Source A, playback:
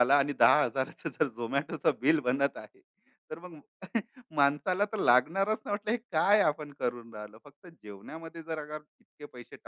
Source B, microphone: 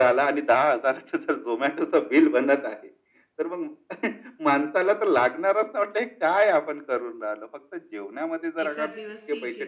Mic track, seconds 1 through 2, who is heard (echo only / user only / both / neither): echo only